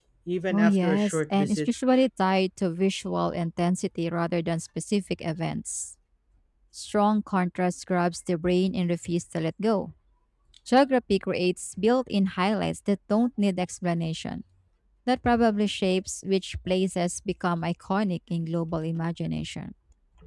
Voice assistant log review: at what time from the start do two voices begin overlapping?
1 s

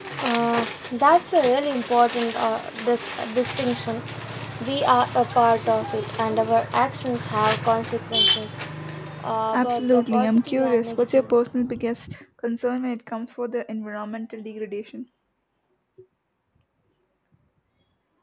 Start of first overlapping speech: 10 s

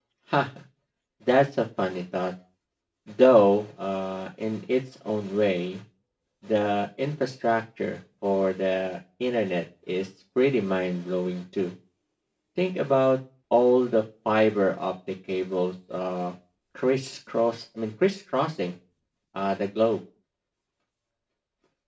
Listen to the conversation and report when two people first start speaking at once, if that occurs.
none

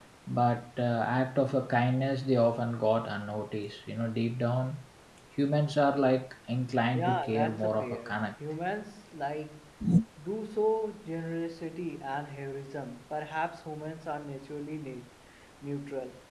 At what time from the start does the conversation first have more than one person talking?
7 s

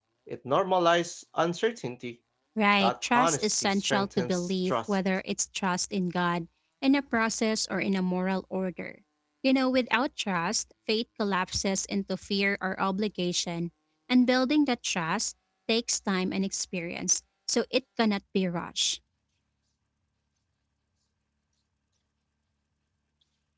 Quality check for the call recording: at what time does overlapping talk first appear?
3 s

